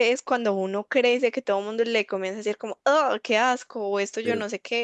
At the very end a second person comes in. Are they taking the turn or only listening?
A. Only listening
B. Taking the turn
A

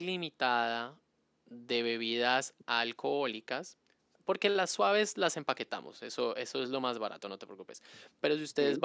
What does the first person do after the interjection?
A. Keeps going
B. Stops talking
A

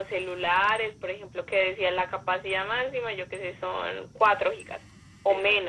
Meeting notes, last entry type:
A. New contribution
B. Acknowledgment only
A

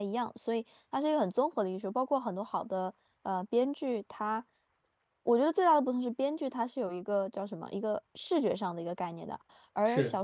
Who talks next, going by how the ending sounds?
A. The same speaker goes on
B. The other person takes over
A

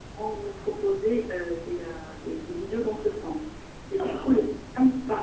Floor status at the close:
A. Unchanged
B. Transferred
A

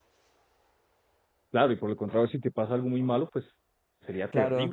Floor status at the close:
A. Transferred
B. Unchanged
A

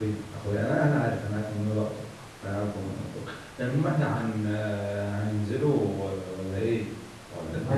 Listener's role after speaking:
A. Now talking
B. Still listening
A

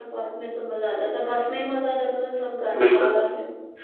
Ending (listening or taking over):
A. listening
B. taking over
B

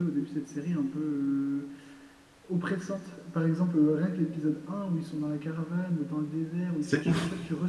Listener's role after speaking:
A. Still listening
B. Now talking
A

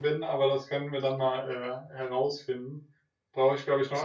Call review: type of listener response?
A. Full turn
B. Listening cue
B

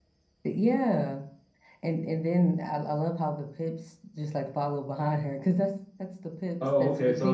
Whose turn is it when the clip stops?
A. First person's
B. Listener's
B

